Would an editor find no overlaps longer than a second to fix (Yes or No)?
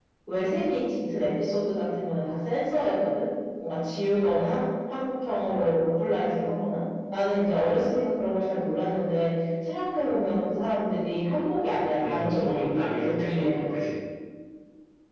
No